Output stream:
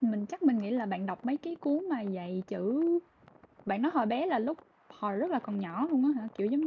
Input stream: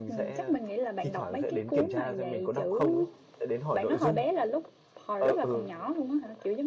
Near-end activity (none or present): present